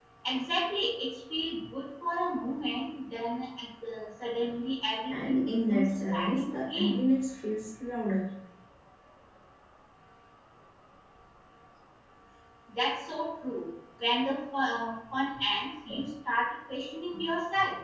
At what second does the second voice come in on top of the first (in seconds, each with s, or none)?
5.1 s